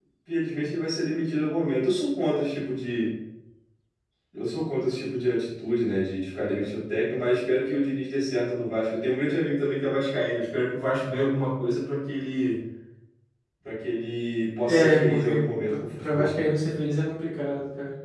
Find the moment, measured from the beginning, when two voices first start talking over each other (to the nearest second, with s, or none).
15 s